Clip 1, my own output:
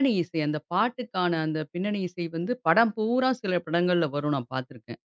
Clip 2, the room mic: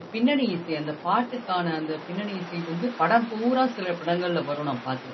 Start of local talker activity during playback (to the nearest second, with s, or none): none